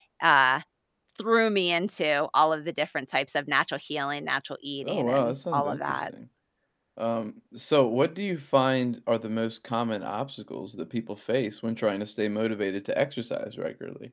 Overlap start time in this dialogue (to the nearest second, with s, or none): 5 s